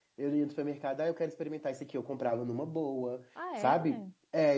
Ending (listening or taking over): listening